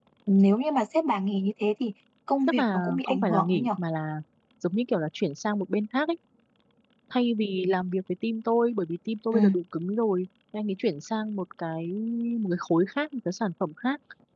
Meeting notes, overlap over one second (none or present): present